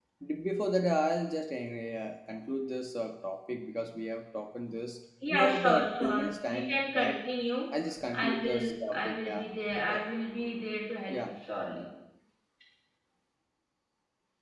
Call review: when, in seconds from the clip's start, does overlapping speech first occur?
5.3 s

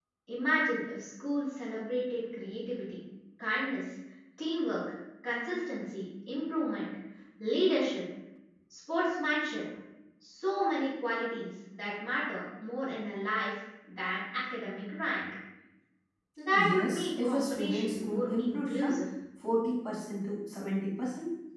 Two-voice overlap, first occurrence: 16.5 s

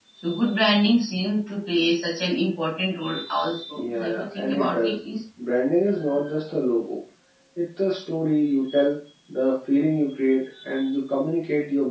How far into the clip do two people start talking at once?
3.8 s

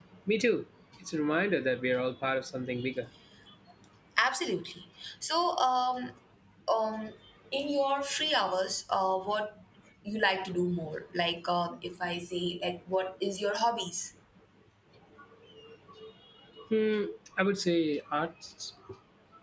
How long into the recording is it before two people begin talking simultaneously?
none

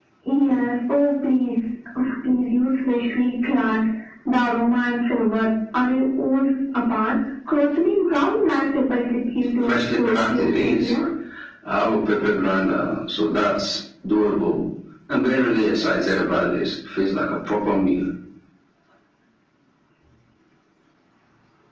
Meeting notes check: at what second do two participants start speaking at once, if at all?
9.6 s

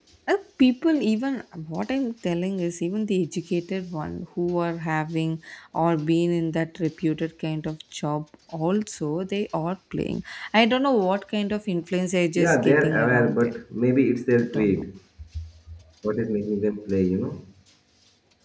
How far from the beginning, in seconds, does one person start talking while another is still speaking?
12.3 s

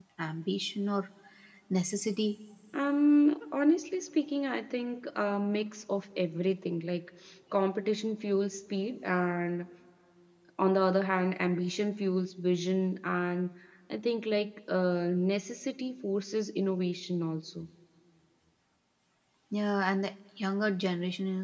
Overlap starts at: none

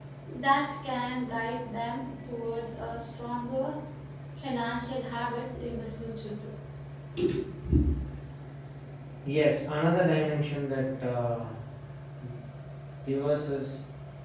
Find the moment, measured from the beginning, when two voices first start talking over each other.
none

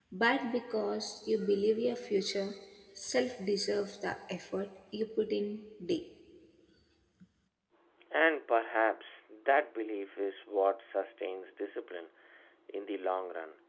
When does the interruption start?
none

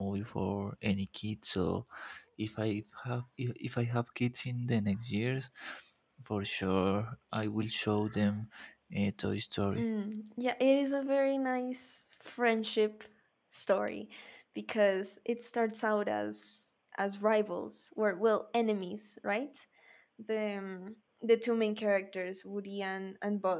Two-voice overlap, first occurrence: none

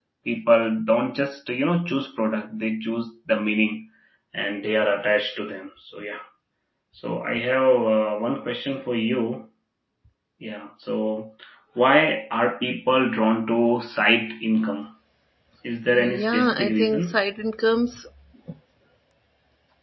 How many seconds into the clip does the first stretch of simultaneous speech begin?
15.9 s

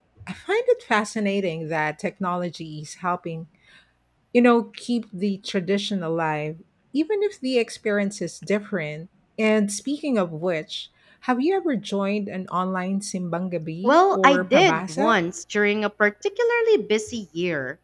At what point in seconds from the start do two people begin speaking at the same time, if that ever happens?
13.8 s

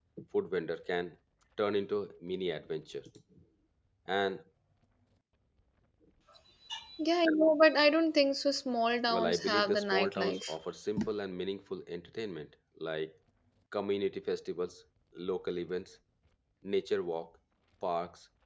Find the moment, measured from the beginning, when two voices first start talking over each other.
9.1 s

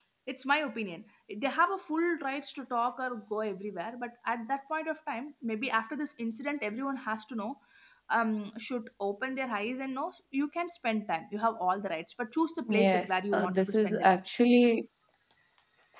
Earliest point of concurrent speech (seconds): 12.6 s

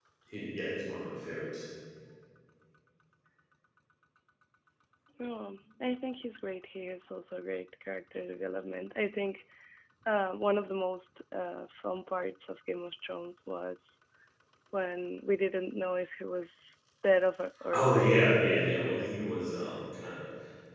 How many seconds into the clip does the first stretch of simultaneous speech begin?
17.7 s

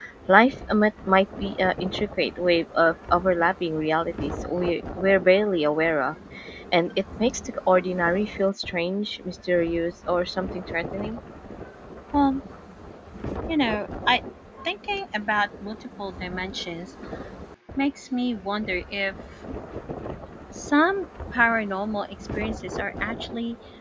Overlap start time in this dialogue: none

